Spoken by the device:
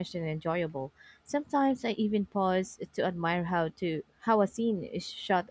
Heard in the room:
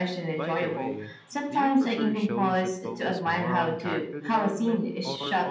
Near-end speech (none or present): present